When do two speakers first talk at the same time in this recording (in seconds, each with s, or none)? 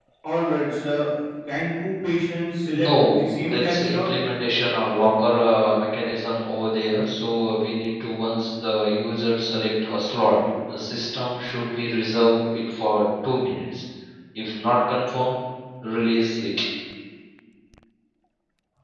2.7 s